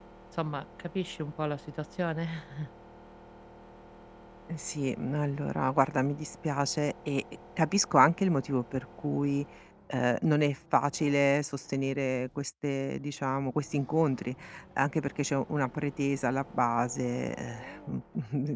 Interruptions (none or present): none